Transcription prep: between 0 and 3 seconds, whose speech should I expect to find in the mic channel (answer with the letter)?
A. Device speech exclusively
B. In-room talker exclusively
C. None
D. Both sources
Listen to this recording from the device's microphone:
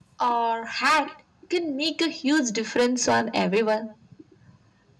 A